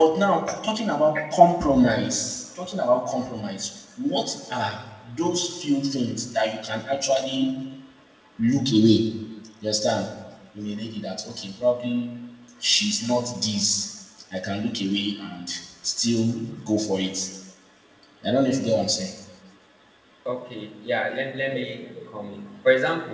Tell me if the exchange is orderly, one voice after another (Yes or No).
Yes